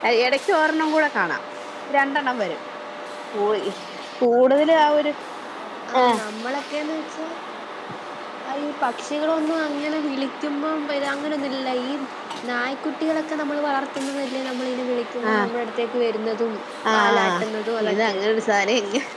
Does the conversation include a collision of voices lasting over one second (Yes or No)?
No